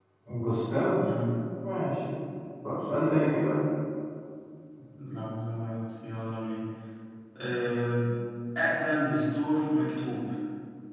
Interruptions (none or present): none